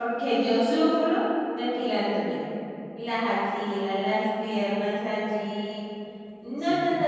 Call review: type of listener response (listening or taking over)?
listening